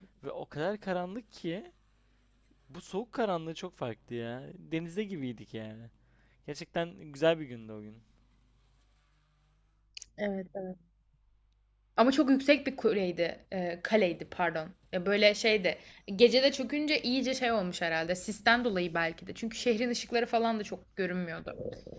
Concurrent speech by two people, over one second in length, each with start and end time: none

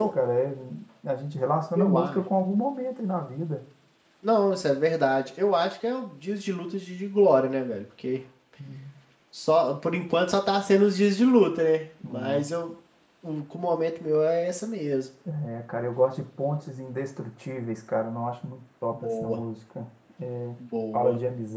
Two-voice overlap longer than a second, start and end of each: none

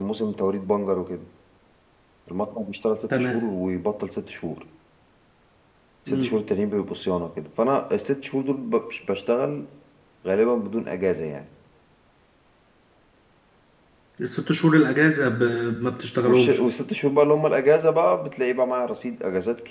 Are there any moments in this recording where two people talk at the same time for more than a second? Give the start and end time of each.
none

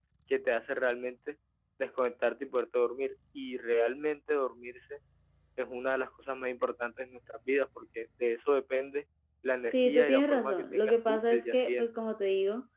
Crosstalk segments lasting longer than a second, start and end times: 9.6-11.9

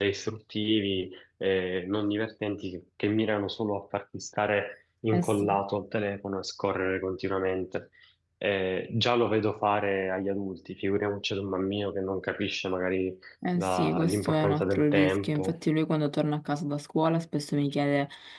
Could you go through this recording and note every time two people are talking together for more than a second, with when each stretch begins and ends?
13.6-15.6

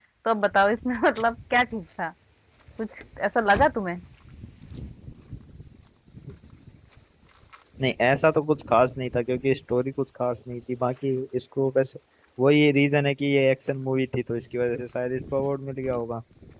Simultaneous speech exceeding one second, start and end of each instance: none

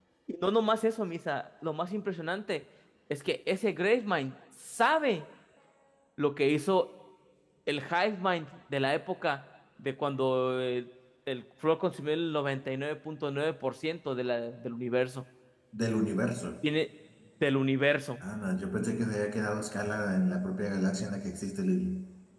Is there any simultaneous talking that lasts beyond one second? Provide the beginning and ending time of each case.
none

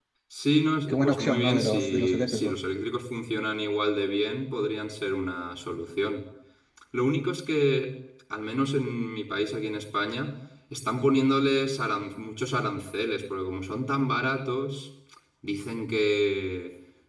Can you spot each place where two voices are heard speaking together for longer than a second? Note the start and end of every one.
0.9-2.5

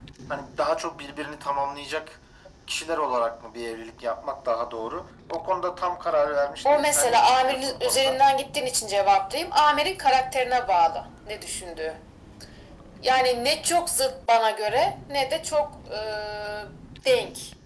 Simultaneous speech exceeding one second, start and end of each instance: 6.7-8.2

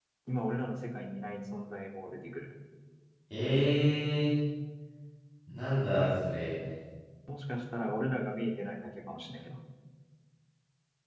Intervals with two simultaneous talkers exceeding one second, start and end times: none

